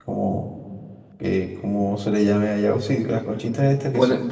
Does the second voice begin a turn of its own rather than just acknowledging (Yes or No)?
Yes